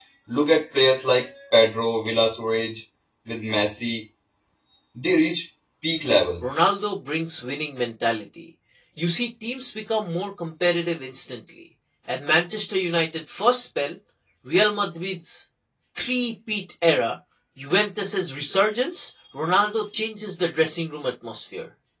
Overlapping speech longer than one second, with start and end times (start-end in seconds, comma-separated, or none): none